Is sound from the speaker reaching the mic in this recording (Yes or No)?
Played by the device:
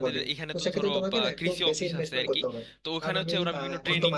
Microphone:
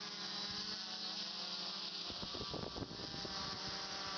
No